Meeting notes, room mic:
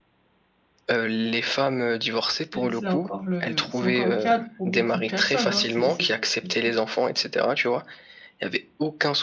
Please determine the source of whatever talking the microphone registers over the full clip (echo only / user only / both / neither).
both